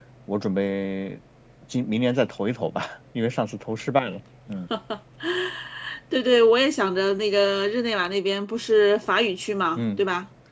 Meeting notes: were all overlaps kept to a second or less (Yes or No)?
Yes